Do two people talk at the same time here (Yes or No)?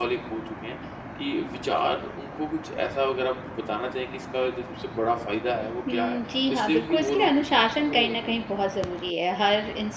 Yes